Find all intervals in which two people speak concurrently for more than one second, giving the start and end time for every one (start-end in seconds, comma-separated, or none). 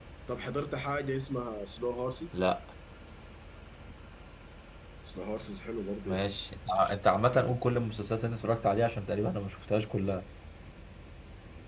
none